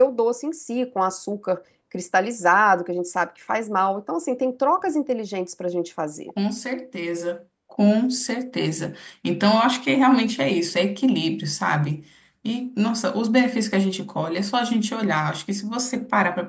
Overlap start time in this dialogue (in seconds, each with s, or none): none